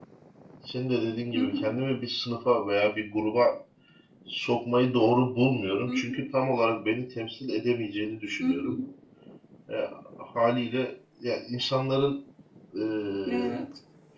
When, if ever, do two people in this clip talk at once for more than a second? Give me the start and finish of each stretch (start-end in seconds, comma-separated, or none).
none